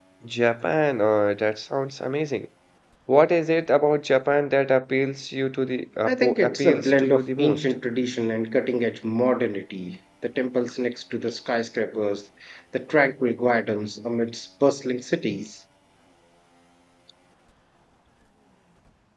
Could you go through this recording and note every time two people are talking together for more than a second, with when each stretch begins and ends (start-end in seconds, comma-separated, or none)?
6.0-7.7